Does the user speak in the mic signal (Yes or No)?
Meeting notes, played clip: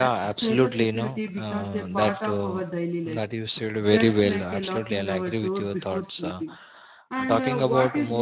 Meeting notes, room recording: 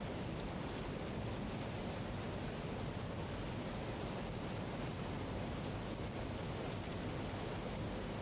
No